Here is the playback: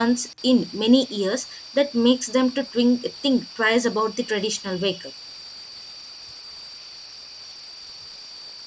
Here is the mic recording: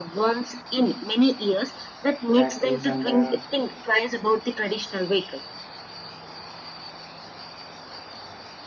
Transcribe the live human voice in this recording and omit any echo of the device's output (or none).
batteries and uh,